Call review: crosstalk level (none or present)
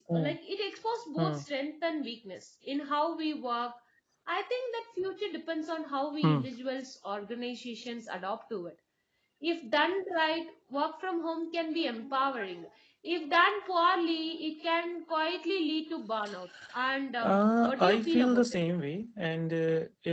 present